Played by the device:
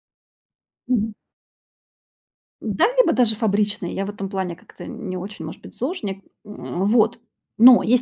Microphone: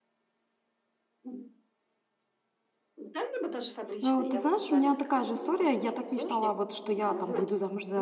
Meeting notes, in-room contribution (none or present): present